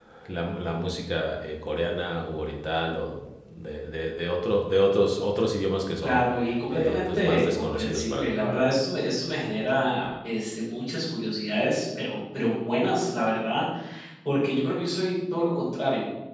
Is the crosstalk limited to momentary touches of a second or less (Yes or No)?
No